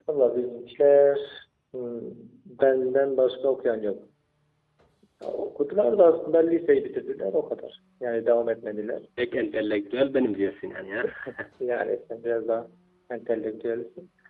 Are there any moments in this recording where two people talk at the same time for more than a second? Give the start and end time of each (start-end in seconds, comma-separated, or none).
none